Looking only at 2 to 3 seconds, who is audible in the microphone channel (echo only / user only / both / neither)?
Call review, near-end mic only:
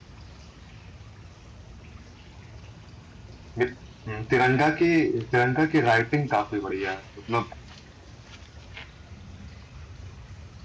neither